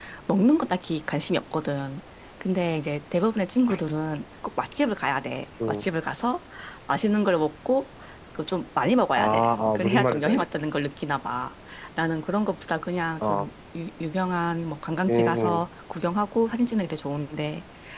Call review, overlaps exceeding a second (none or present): present